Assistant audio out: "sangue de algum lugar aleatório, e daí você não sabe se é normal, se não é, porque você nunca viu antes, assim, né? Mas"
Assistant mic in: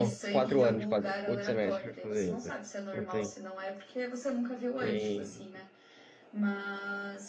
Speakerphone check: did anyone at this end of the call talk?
Yes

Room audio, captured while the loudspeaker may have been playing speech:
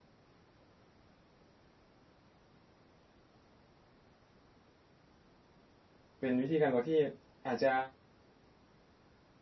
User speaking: Yes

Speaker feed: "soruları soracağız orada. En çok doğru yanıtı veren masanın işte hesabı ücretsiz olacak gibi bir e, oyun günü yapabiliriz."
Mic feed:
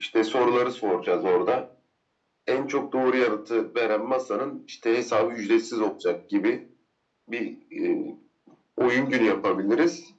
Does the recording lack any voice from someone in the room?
Yes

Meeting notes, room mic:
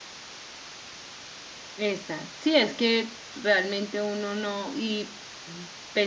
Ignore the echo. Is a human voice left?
Yes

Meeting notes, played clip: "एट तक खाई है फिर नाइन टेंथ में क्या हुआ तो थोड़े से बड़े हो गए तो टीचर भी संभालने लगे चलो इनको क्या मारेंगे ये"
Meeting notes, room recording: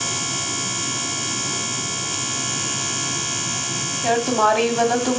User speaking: Yes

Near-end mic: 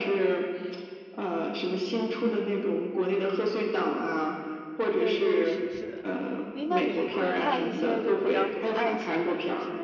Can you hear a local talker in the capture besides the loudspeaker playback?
Yes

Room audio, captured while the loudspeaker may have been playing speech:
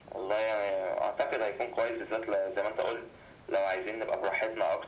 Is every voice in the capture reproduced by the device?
Yes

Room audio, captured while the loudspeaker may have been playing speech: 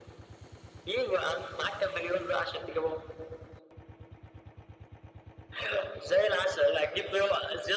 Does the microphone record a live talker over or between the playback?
No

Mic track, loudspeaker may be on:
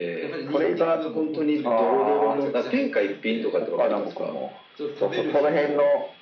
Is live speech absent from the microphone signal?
No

